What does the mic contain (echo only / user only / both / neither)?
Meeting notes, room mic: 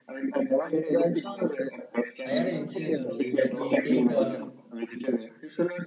both